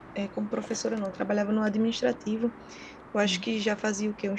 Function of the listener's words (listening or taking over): listening